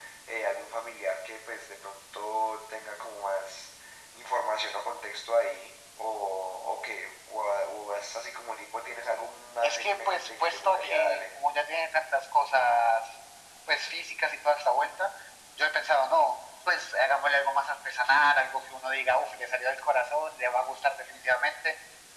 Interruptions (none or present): present